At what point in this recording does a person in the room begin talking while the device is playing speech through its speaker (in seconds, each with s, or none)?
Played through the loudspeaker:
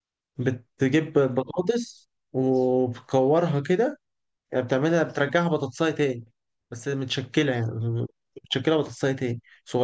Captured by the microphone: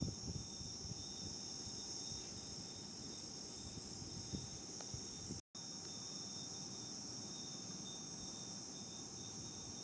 none